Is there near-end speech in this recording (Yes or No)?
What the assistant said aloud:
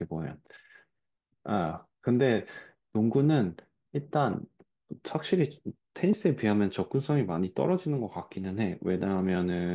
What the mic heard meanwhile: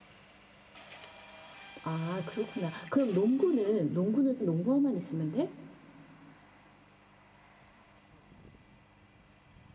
Yes